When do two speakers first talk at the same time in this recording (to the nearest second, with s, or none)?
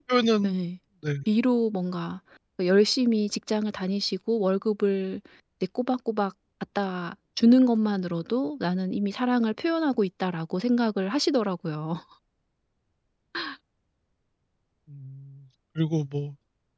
none